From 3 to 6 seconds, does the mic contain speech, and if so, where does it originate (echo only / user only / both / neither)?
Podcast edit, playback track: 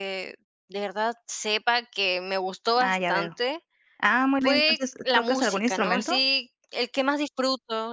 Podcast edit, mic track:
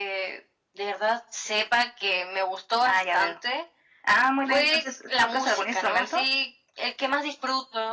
echo only